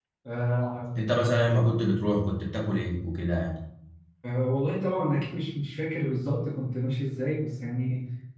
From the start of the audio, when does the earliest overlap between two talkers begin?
none

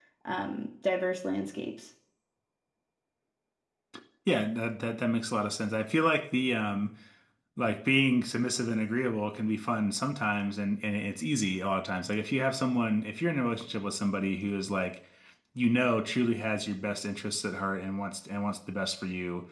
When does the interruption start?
none

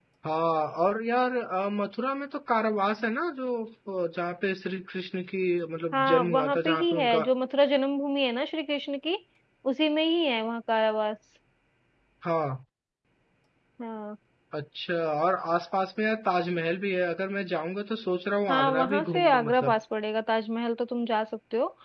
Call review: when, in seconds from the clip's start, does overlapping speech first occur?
6 s

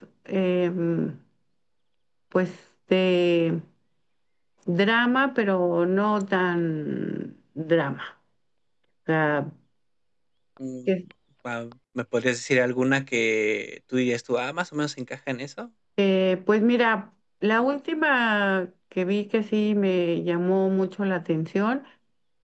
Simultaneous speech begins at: none

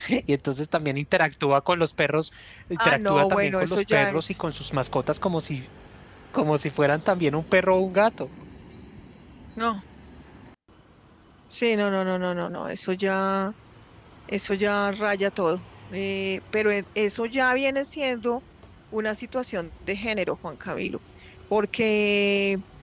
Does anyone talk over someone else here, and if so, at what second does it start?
3 s

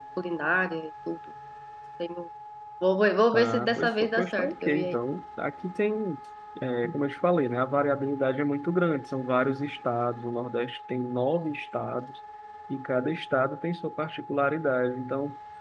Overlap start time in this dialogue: 3 s

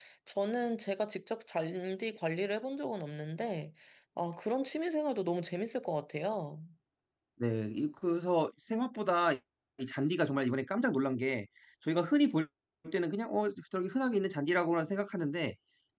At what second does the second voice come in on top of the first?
none

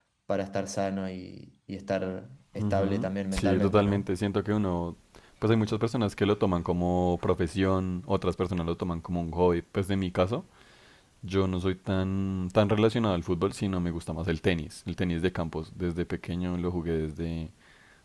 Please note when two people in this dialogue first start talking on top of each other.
3 s

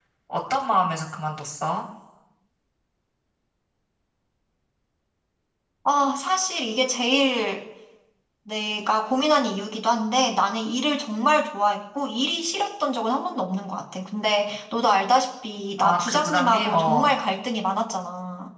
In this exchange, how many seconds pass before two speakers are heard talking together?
16 s

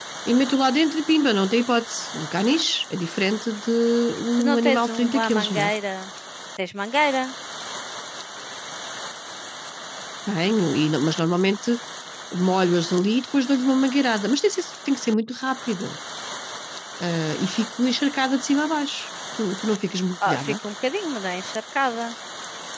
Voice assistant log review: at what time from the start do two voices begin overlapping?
4 s

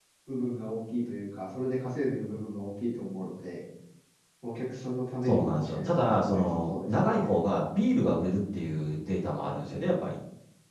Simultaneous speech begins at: 5 s

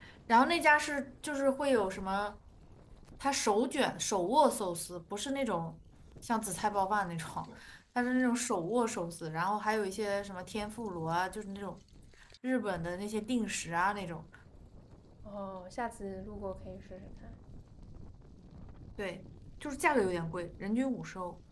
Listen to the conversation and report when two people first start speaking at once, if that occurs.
none

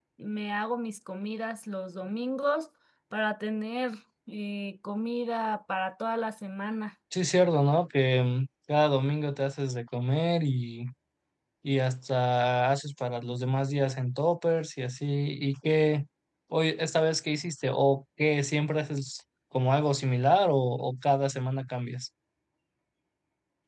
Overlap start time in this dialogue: none

